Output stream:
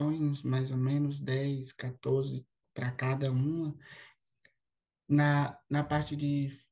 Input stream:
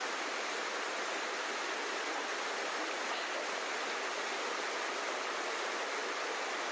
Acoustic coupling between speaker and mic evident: No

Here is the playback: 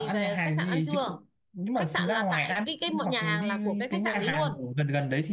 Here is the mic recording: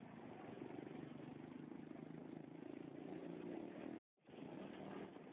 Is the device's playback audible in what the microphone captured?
No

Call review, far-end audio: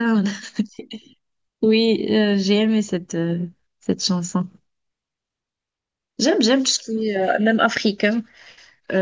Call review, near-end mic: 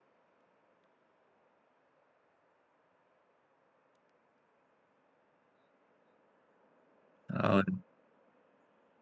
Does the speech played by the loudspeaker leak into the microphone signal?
No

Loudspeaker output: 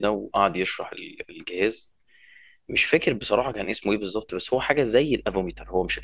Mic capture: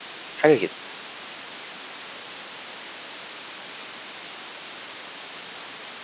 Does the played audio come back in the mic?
No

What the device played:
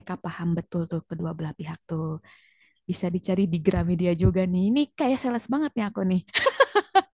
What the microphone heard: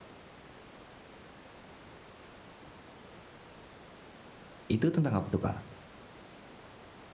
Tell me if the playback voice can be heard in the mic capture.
No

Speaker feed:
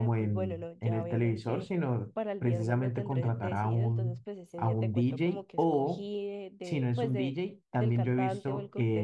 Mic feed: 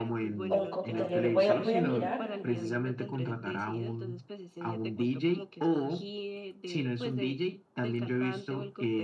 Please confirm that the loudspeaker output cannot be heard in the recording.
No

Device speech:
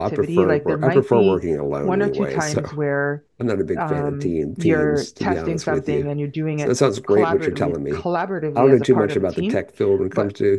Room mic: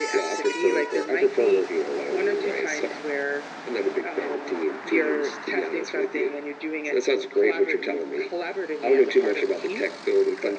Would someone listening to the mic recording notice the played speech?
Yes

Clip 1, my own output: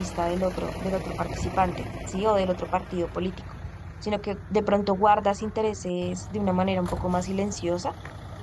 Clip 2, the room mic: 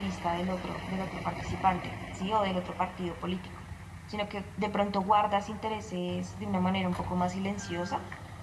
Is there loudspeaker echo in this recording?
Yes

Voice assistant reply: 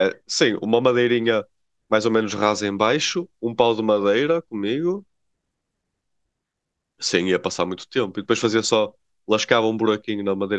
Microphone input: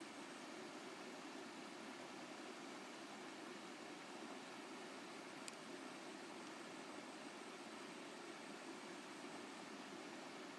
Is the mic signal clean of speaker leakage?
Yes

